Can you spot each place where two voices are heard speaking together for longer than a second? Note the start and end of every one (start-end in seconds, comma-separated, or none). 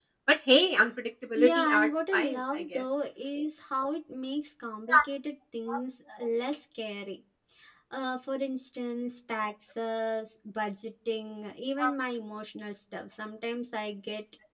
1.4-2.8